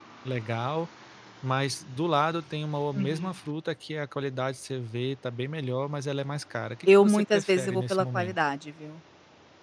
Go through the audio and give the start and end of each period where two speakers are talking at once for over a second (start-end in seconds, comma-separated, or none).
6.9-8.4